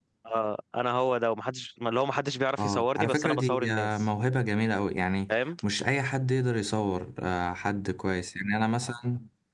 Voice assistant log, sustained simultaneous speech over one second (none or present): present